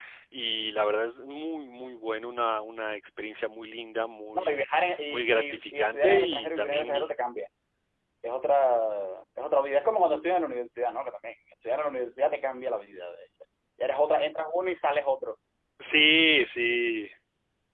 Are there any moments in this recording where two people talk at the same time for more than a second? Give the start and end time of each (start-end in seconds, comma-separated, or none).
5.1-7.1